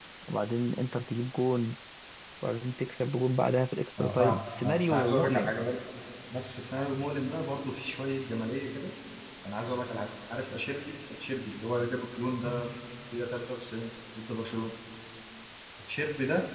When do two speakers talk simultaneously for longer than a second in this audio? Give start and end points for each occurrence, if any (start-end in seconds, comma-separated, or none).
4.0-5.5